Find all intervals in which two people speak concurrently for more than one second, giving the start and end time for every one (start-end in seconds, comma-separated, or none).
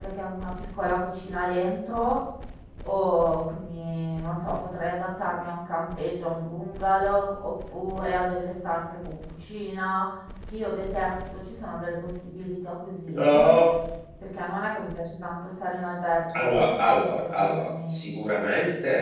16.4-18.1